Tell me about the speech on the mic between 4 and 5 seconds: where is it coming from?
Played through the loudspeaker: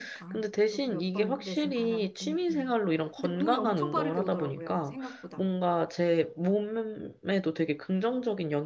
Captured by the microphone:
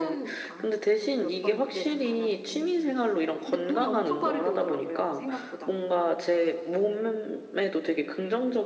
echo only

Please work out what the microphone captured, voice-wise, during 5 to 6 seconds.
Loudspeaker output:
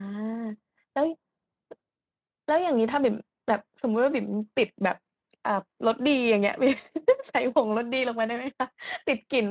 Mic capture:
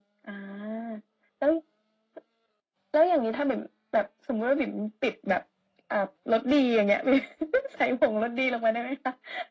echo only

